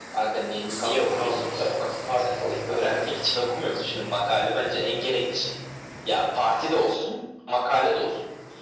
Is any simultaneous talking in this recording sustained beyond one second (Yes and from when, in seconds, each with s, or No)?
Yes, from 0.8 s